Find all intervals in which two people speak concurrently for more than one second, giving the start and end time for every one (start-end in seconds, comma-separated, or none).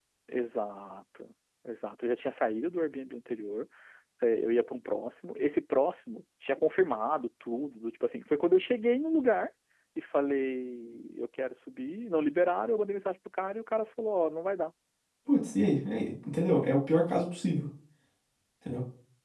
none